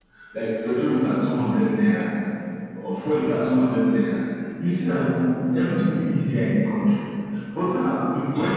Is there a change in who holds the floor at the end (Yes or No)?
No